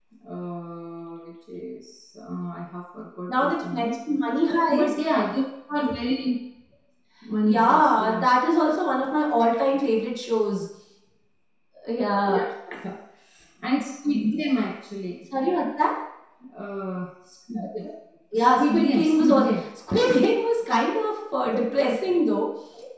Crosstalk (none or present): present